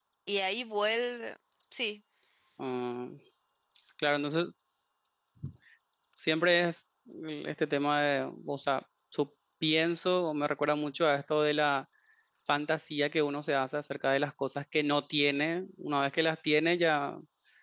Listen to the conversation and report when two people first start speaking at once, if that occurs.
none

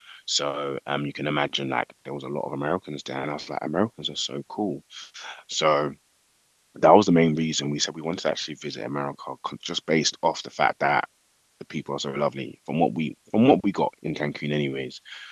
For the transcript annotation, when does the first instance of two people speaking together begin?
none

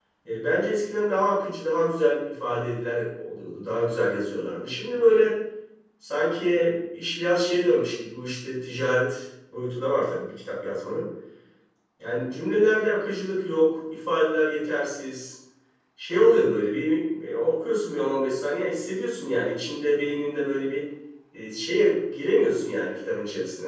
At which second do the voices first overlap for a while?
none

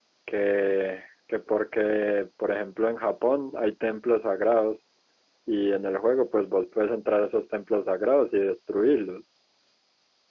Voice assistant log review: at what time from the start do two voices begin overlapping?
none

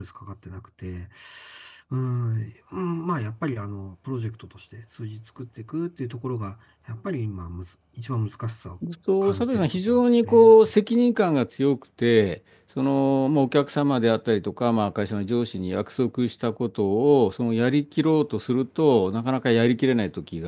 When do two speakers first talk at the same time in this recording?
9.2 s

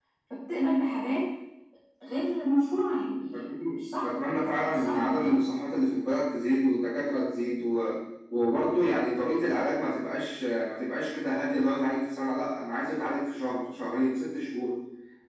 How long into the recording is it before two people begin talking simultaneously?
3.3 s

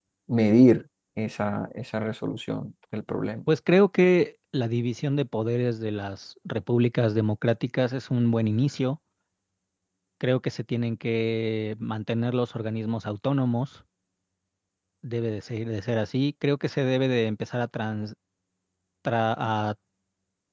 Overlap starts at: none

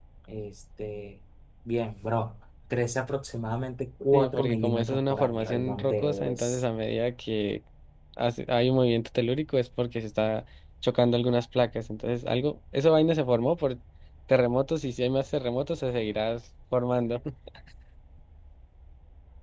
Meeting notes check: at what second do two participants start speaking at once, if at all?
4.1 s

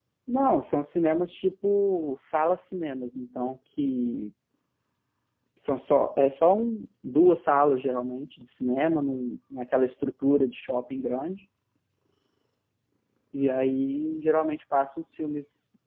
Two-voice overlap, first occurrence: none

